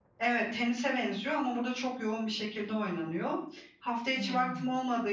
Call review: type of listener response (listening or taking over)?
listening